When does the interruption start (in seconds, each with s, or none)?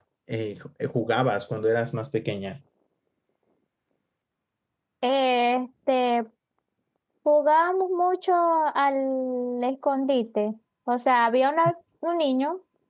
none